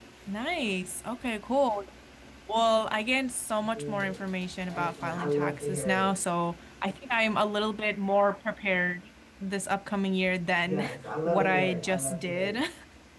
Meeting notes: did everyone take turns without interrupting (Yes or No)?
No